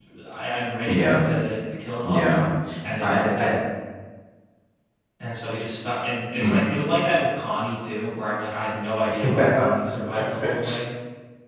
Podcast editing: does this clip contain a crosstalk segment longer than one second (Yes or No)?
No